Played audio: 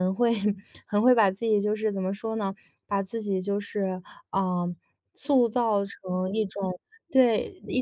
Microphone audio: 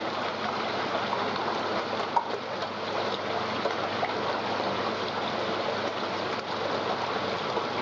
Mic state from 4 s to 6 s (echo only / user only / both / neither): neither